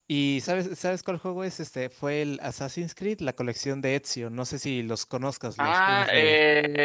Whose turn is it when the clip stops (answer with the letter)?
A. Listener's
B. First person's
A